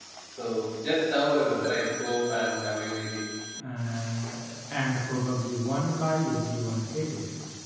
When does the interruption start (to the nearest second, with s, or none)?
none